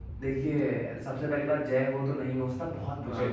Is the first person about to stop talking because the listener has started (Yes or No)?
No